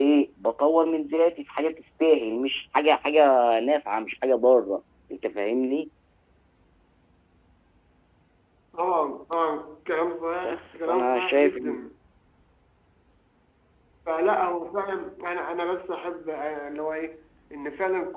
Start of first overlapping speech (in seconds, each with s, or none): 10.4 s